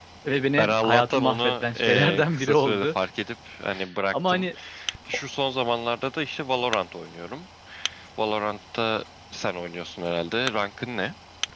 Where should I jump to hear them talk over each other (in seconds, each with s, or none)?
0.6 s